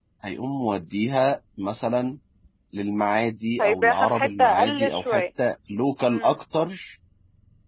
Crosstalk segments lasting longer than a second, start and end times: 3.6-5.2

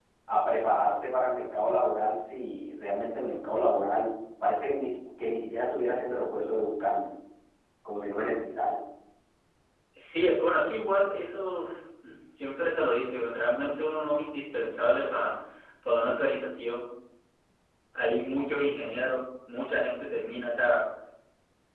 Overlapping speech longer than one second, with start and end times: none

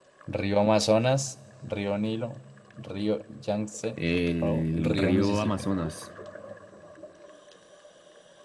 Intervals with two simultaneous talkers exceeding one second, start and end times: 4.4-5.7

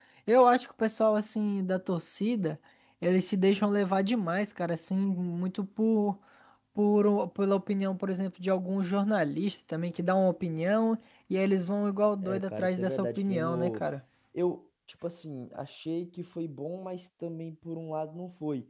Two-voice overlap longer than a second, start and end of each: 12.2-13.8

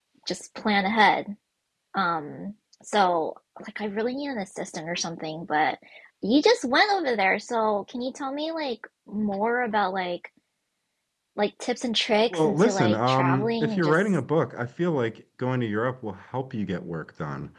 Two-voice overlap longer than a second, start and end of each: 12.3-13.9

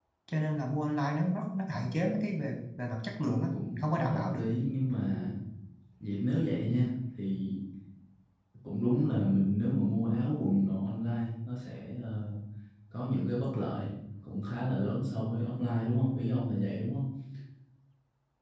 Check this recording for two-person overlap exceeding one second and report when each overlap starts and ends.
3.2-4.4

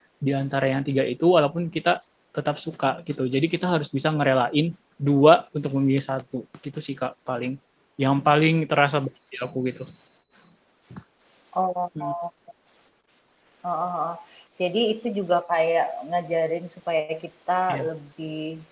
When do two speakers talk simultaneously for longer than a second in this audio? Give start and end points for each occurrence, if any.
none

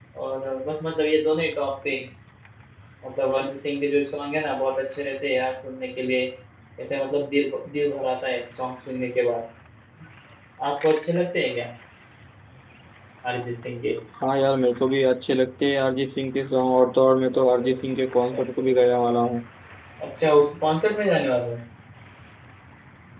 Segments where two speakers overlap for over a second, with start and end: none

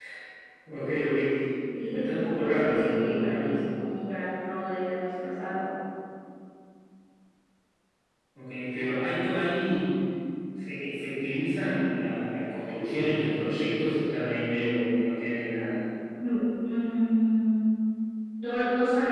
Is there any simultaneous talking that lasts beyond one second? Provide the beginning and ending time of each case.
1.8-3.5

